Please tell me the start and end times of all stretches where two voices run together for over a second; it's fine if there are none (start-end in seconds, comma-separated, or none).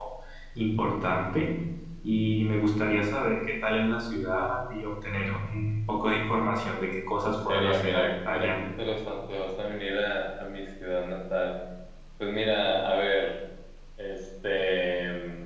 7.2-8.5